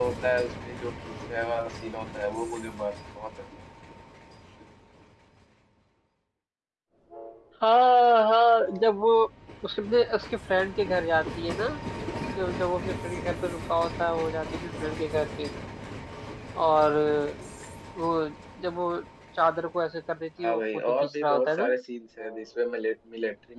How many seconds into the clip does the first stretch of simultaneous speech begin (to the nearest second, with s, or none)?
20 s